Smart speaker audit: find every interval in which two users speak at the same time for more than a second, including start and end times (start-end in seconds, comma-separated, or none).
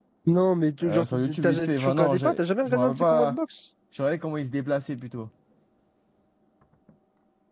0.8-3.4